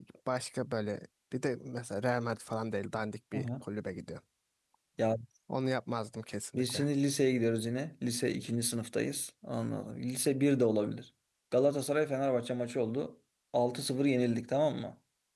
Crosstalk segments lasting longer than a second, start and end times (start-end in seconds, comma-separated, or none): none